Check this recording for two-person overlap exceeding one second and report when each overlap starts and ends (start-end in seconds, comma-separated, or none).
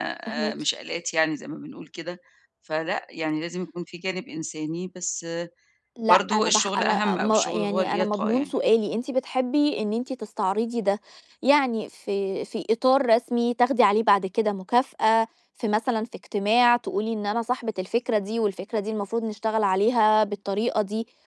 6.1-8.5